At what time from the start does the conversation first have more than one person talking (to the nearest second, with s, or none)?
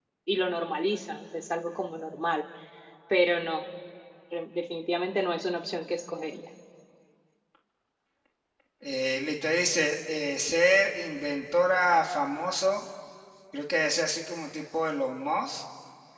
none